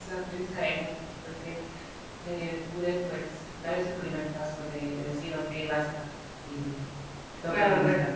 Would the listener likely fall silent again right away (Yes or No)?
No